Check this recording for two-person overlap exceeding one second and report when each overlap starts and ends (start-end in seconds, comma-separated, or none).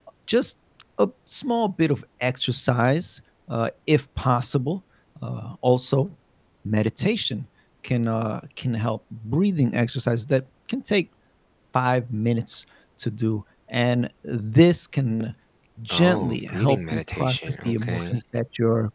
15.9-18.2